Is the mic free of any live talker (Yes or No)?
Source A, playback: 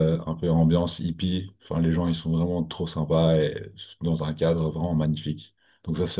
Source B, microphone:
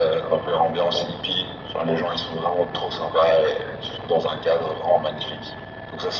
Yes